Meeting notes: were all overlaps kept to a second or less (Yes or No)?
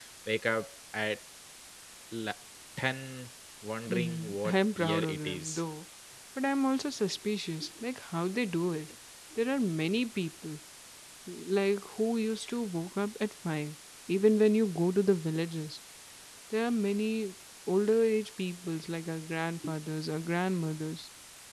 No